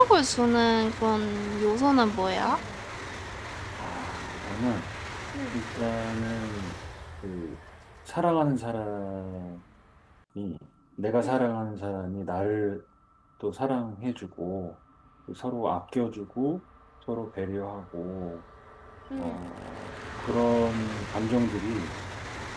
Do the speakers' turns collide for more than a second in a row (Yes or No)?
No